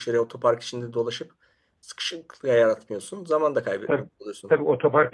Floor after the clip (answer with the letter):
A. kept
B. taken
B